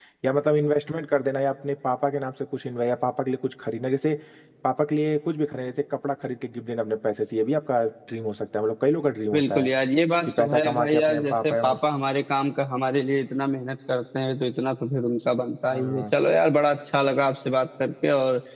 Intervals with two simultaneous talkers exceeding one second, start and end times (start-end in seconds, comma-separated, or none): 10.3-11.8